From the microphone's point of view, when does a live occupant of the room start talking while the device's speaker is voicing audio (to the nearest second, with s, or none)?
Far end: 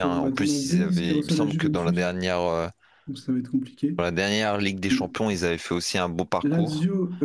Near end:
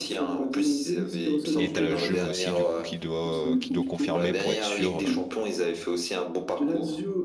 2 s